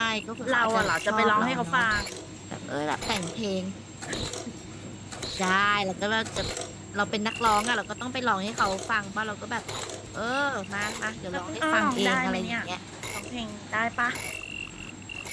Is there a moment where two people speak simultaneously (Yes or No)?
Yes